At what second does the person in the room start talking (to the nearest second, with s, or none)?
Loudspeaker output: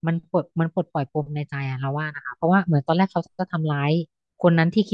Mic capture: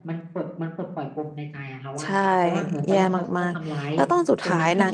2 s